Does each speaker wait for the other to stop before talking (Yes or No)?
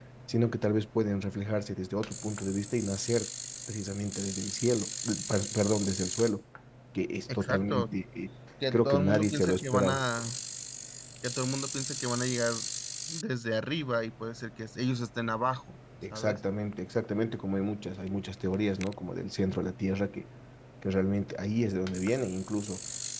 No